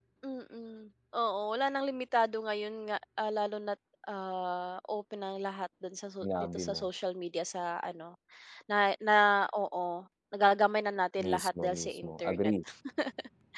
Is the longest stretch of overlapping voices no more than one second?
No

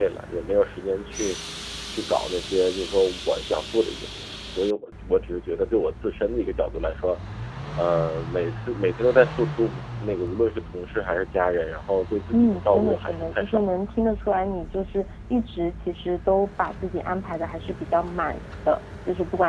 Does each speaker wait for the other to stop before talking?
No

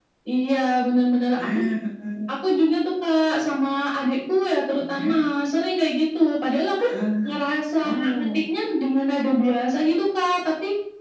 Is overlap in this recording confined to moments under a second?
Yes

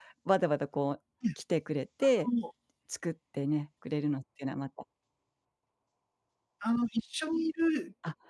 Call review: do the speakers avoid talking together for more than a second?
Yes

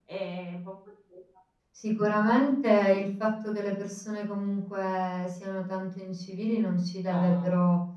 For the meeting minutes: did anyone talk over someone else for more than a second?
No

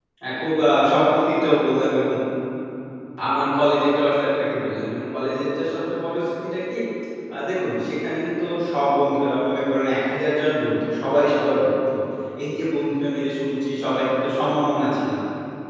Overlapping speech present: No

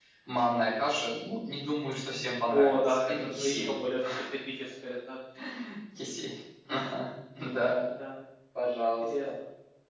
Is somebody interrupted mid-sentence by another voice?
Yes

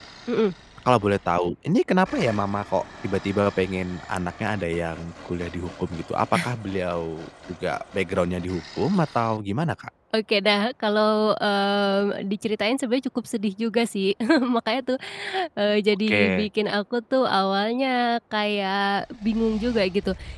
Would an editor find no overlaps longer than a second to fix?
Yes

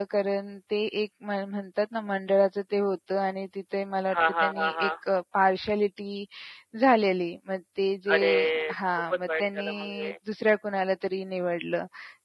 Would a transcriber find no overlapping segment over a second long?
No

